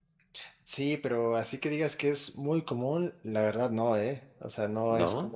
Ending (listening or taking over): listening